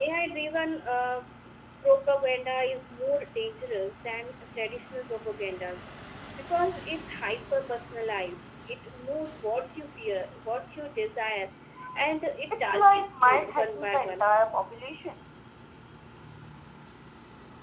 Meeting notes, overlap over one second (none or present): present